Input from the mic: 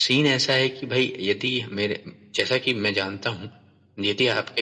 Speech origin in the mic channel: echo only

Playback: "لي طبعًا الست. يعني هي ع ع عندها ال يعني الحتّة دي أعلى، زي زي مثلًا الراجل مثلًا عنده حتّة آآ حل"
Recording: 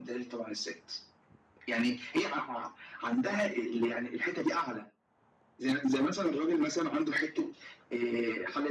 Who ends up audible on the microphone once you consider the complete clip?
echo only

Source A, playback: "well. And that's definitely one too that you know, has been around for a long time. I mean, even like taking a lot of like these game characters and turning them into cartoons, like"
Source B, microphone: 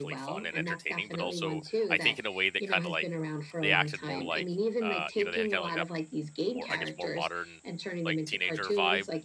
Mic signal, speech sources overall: both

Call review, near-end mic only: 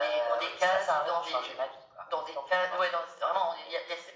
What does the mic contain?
echo only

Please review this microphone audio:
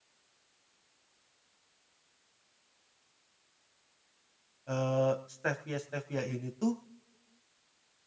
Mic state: user only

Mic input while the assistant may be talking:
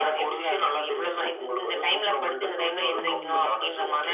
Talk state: both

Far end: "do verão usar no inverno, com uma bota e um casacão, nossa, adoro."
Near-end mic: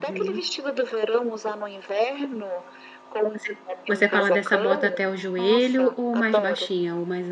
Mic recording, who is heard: both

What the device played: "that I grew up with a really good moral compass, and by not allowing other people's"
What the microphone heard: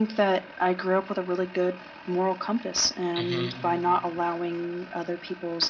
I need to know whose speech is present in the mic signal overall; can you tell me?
both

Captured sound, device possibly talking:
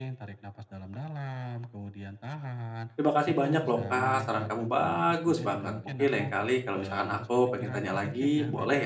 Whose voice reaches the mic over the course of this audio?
both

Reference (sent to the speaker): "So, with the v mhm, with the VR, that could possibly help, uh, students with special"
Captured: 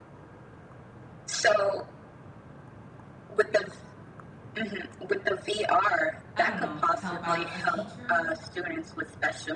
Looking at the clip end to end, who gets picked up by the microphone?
both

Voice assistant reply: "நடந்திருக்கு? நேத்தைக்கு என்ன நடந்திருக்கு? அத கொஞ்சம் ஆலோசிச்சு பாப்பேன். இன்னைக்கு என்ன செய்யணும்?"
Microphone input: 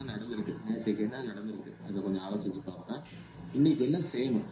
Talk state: echo only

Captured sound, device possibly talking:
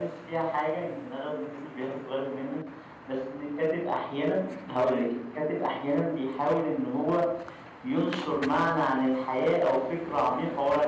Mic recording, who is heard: echo only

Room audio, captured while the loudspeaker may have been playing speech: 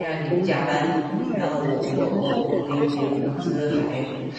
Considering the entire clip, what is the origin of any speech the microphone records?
both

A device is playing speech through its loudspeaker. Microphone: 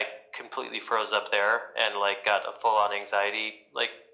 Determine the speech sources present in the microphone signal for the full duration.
echo only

